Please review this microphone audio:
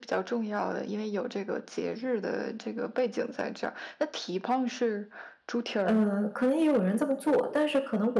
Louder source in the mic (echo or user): user